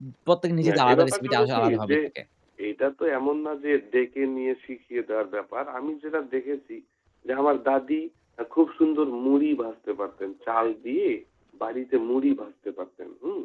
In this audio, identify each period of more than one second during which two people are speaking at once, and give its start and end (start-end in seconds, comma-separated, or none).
0.7-2.0